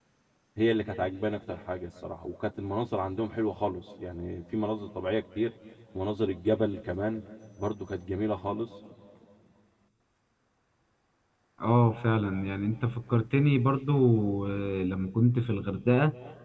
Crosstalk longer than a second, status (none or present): none